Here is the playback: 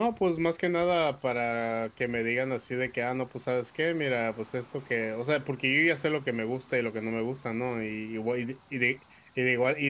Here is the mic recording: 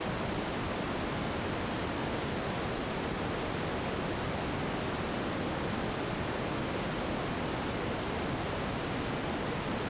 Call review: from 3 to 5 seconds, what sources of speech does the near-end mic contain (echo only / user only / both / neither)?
neither